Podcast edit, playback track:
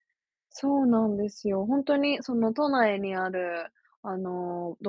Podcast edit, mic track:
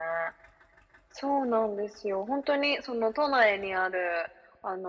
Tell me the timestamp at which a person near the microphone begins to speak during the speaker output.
none

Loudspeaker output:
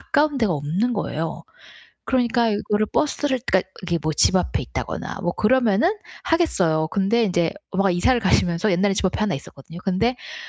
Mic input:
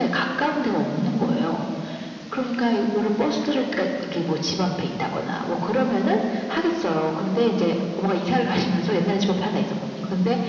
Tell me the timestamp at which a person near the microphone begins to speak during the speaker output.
none

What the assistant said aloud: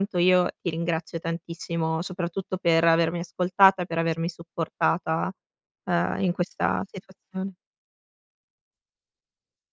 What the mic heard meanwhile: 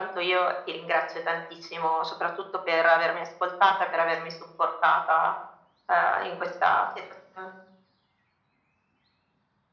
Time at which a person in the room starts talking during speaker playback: none

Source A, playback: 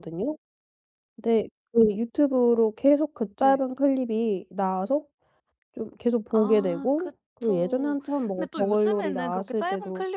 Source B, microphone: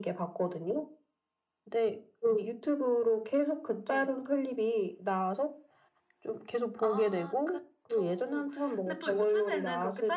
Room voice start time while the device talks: none

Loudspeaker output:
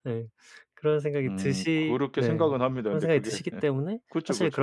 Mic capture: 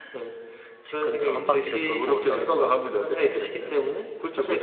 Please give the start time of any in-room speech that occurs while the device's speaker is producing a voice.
0.8 s

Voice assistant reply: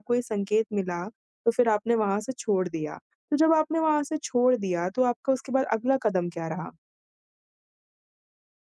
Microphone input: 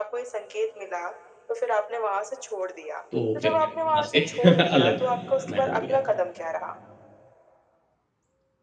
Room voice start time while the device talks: 3.1 s

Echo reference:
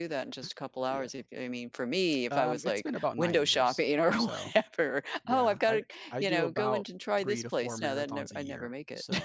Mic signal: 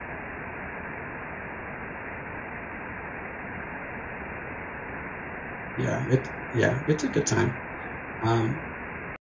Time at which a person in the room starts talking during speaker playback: 5.8 s

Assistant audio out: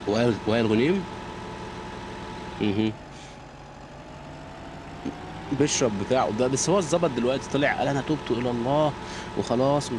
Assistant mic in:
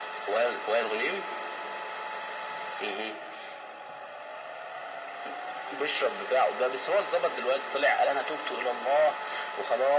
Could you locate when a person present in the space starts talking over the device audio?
none

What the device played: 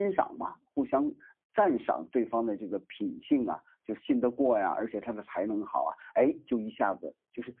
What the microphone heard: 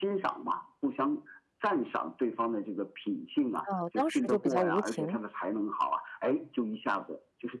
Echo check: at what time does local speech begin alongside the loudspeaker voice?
3.7 s

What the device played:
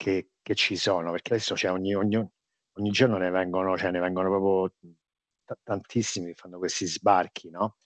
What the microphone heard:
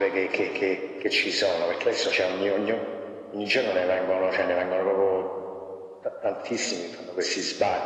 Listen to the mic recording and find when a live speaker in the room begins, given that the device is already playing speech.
none

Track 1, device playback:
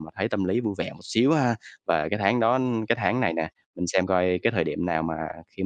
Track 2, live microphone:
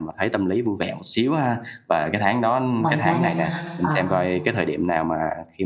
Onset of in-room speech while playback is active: 2.8 s

